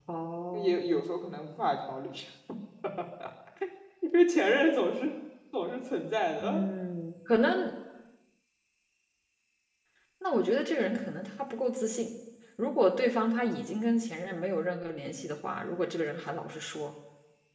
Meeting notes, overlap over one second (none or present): none